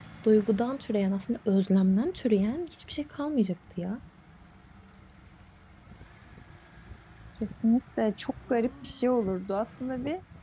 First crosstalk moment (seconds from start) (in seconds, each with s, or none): none